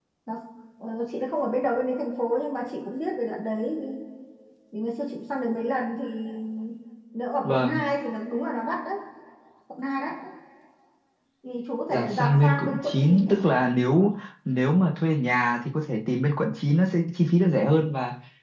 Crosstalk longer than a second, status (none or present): present